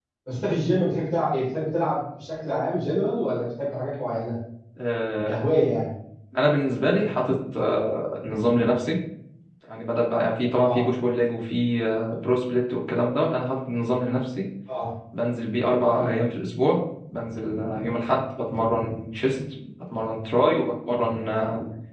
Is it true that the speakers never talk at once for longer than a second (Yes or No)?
Yes